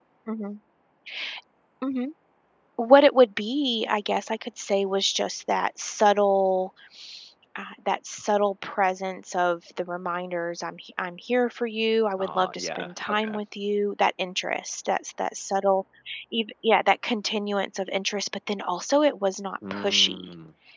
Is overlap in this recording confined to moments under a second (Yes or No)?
No